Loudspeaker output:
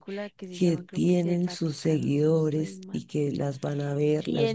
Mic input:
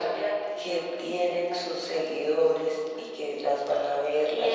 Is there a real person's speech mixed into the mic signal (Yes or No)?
No